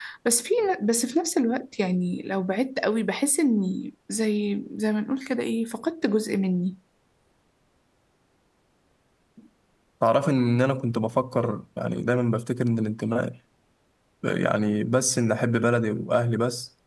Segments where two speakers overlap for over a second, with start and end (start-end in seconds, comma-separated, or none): none